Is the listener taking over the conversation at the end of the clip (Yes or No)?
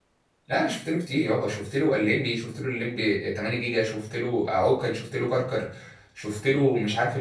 No